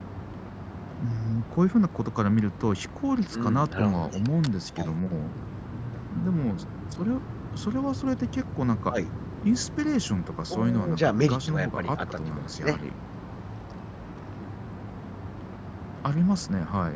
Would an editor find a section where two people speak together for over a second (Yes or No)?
Yes